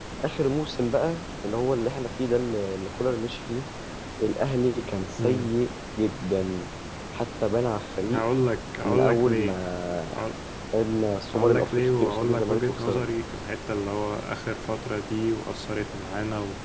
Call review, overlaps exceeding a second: present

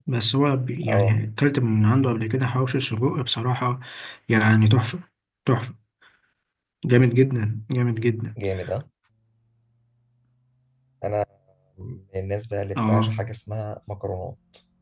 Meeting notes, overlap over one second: none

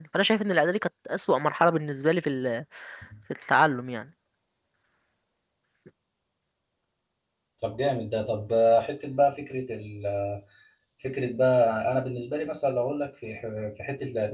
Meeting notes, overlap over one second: none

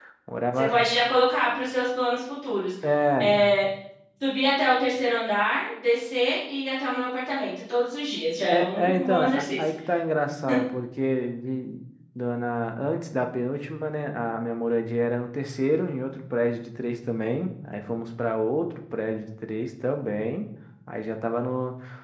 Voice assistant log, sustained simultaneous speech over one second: present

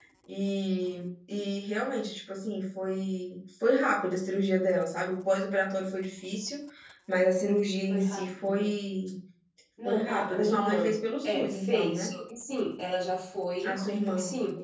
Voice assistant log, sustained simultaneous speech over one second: present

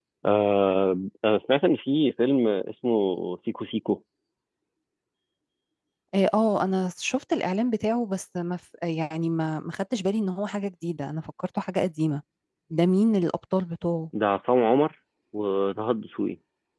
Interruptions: none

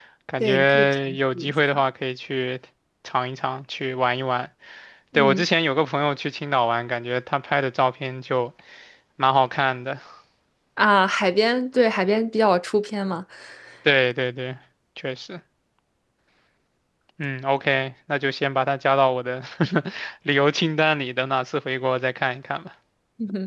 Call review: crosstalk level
present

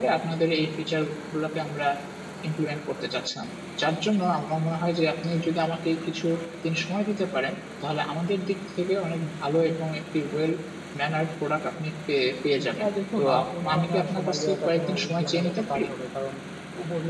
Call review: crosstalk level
present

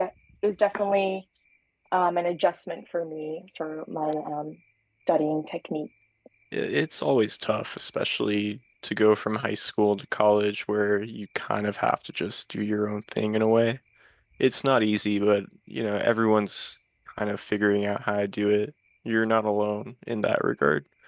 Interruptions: none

